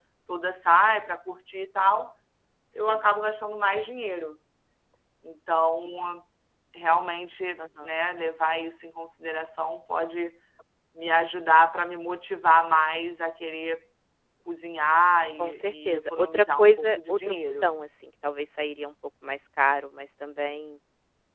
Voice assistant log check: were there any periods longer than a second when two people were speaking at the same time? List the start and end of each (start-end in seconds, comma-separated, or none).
15.4-17.7